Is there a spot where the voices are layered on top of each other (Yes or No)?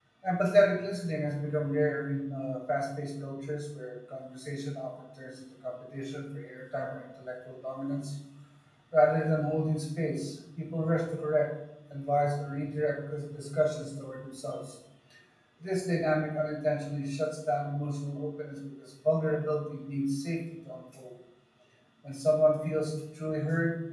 No